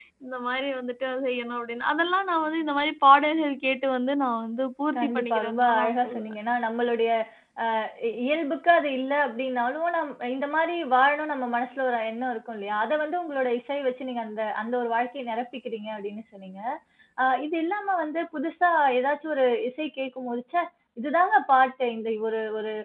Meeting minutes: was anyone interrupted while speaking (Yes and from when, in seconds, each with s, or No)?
Yes, from 5.0 s